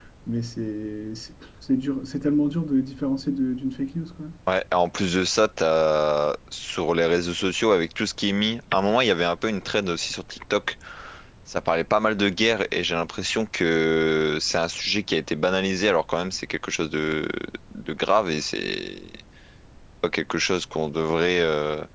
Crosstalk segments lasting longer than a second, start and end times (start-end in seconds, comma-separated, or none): none